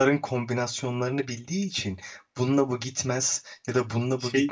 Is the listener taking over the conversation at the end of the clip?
No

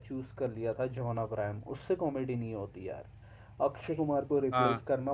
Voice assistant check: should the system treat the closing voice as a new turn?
No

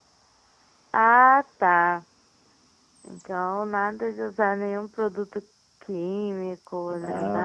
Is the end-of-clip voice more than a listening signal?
Yes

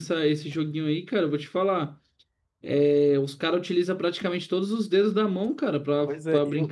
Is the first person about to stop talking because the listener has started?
Yes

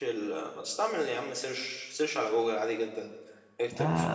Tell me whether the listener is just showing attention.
Yes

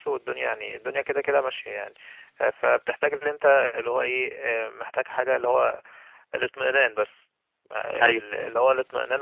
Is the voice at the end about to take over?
No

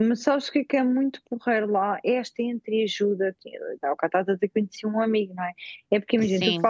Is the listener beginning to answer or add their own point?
No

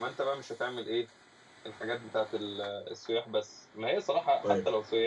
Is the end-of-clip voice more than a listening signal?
No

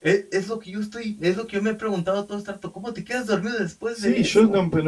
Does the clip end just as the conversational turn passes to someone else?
Yes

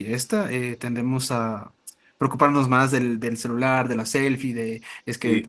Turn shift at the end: No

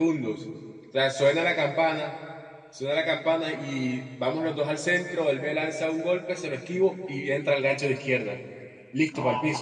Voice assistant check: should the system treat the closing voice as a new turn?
Yes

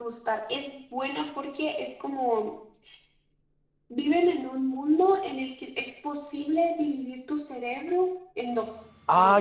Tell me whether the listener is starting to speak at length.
Yes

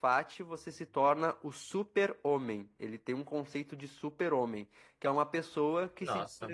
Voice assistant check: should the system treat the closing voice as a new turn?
No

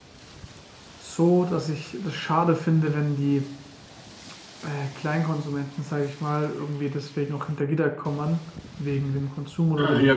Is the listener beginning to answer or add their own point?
Yes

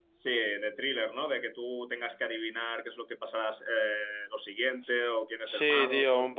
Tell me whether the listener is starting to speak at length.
Yes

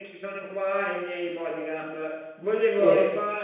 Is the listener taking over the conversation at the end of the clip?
No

